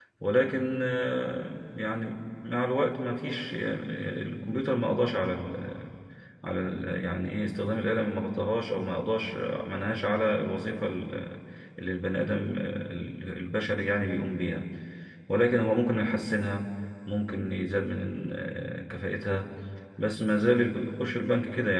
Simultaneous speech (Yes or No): No